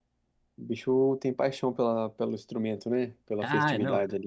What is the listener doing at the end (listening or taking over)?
taking over